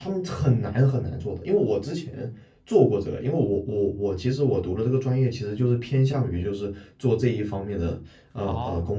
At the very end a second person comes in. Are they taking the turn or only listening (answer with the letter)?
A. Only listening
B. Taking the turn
B